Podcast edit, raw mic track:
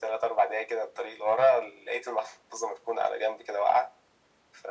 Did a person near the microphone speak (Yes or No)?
No